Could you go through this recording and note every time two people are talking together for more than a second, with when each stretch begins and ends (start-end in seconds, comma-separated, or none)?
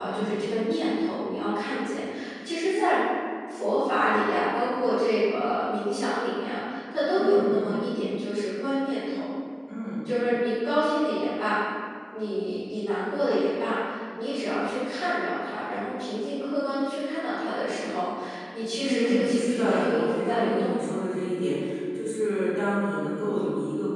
18.8-20.9